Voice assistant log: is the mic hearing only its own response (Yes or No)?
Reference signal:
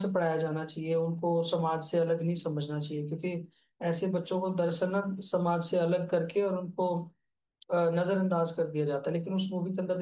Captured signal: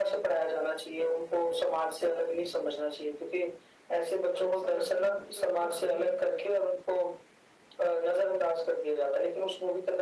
No